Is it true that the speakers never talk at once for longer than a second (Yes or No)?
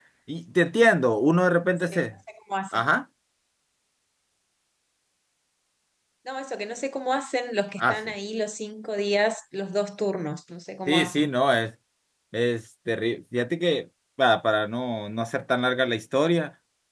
Yes